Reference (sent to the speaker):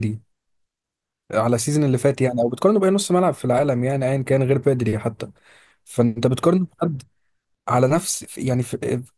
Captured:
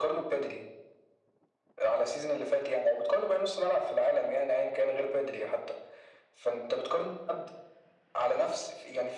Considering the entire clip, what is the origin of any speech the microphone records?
echo only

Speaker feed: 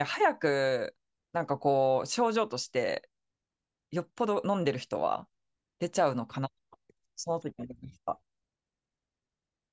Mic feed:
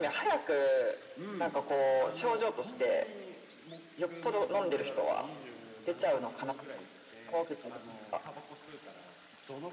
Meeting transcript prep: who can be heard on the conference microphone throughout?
both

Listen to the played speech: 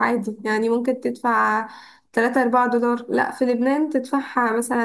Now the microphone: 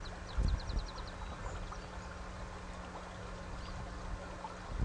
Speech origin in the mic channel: neither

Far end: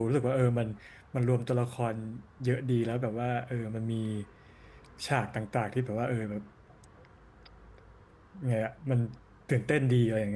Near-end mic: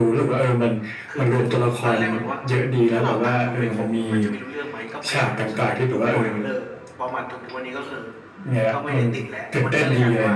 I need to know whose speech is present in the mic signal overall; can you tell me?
both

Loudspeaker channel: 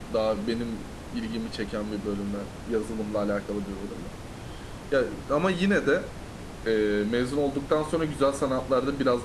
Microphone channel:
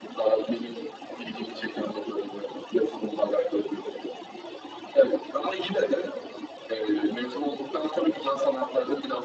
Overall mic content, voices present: echo only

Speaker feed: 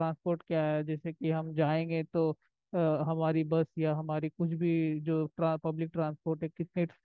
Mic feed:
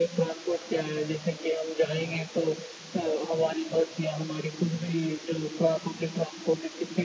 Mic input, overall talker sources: echo only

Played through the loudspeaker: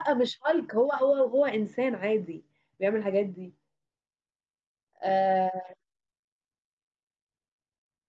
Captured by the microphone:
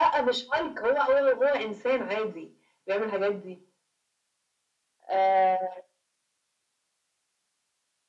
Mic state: echo only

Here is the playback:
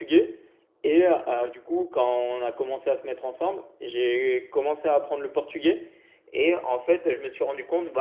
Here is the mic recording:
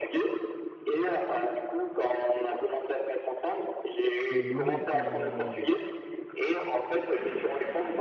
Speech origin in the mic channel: both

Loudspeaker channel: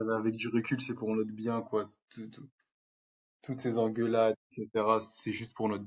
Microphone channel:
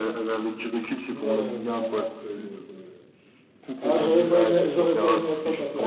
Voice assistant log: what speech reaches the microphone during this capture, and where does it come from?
both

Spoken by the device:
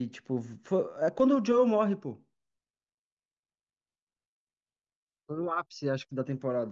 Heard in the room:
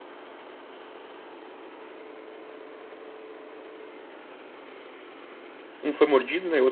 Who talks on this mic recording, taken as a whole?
user only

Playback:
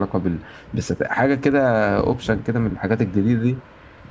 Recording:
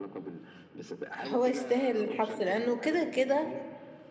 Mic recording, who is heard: both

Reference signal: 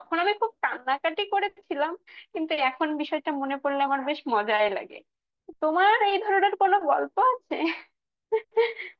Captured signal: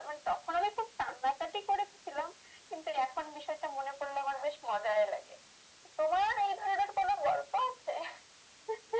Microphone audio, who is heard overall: echo only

